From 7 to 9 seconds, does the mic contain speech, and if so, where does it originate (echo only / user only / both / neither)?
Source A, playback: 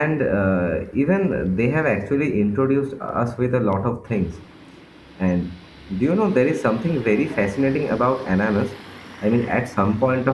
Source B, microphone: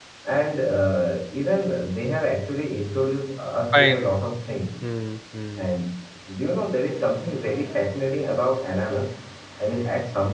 echo only